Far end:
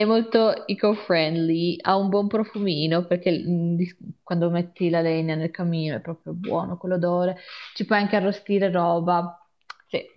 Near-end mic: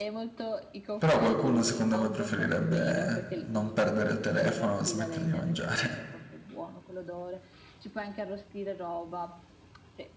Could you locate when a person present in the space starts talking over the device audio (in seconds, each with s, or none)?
1.0 s